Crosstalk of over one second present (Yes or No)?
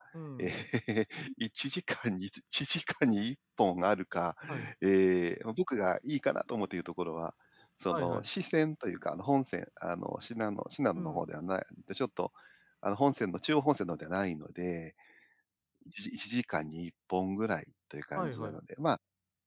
No